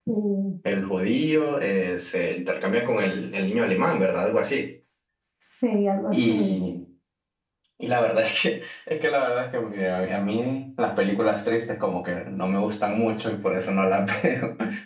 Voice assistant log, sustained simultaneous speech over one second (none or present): none